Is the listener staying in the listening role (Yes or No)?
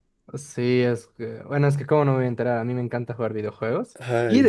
Yes